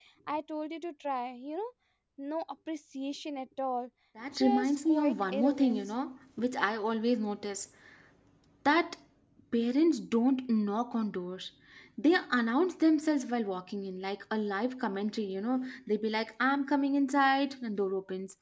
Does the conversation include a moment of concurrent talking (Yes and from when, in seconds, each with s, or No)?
Yes, from 4.3 s